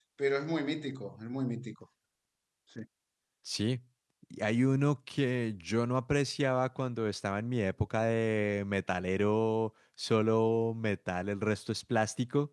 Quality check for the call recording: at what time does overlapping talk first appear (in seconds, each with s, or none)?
none